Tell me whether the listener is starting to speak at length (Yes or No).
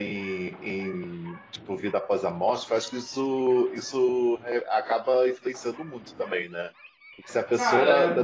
No